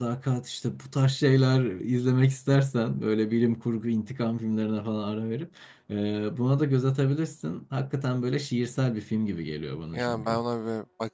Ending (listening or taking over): taking over